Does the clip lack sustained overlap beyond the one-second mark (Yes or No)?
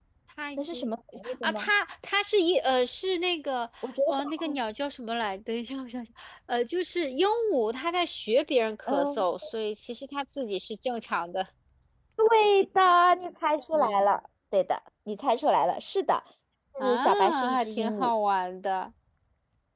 No